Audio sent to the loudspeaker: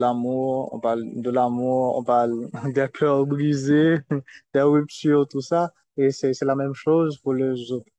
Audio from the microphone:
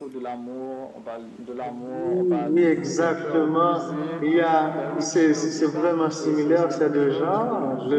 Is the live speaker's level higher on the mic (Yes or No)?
Yes